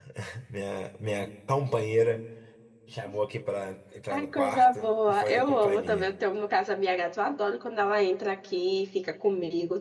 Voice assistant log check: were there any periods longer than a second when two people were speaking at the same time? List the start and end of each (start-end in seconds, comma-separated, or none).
4.1-6.1